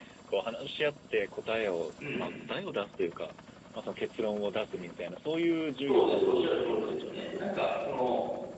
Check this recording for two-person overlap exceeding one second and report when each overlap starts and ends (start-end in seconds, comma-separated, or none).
5.9-7.5